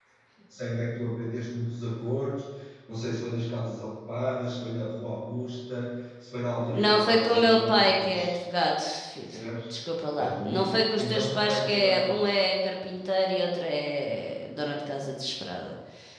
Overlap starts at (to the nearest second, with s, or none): 7 s